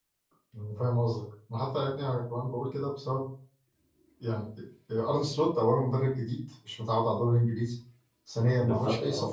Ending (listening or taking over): listening